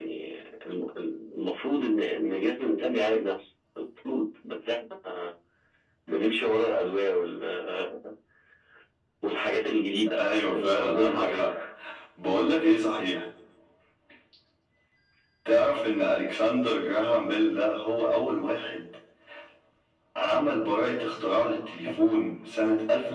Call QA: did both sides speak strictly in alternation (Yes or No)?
No